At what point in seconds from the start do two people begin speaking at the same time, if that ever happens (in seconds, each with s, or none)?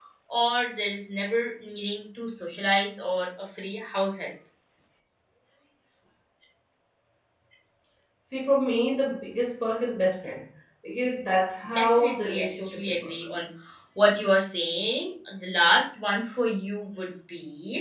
11.8 s